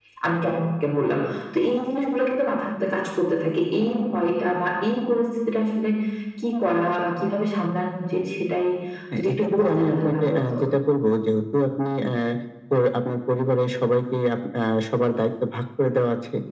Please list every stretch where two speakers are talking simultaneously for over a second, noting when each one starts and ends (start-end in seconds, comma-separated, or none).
9.2-10.5